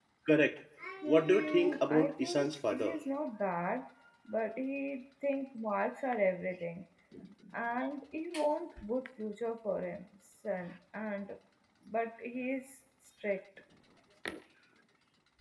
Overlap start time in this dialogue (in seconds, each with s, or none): 1.1 s